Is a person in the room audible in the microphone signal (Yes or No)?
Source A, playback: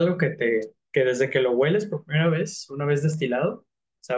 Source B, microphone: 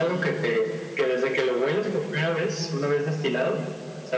No